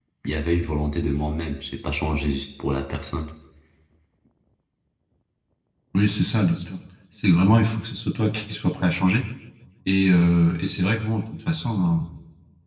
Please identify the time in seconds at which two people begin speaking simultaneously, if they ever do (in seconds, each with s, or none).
none